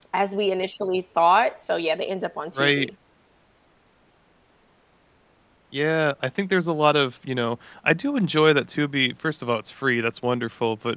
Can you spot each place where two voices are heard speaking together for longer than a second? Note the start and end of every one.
none

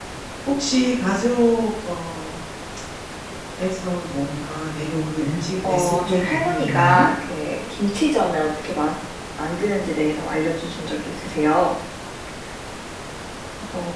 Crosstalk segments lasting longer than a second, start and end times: 5.6-7.1

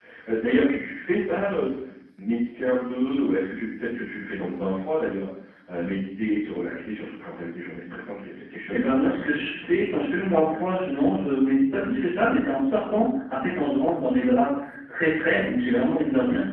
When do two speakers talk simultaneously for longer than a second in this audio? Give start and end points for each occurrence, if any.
8.7-10.6

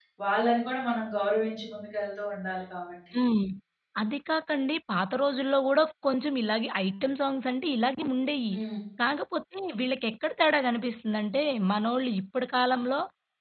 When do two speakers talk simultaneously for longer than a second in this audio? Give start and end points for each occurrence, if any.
none

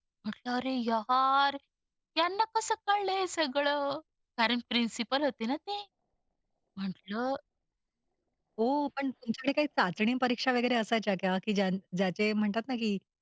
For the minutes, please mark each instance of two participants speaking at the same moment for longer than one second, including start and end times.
none

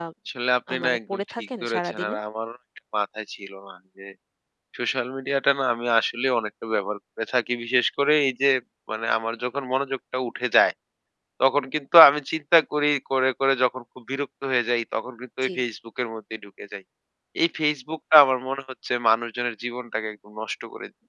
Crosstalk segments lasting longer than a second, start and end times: 0.7-2.1

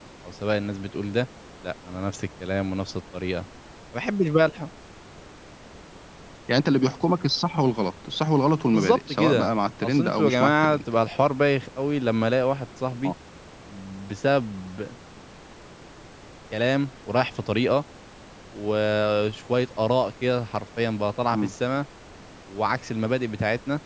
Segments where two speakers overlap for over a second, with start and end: 8.7-10.8

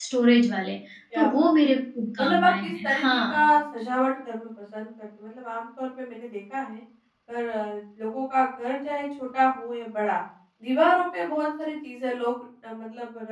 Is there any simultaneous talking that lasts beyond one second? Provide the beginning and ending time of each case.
2.2-3.5

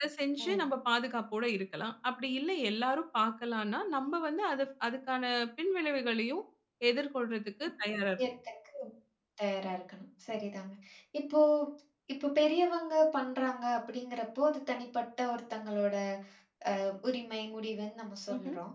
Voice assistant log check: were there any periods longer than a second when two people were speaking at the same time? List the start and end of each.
none

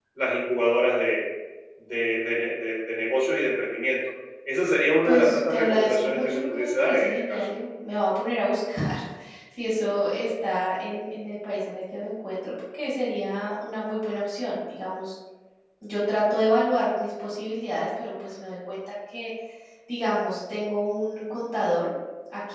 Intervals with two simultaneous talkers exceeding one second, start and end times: 5.0-7.4

